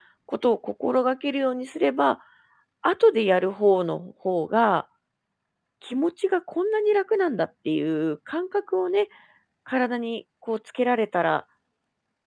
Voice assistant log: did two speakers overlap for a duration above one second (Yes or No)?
No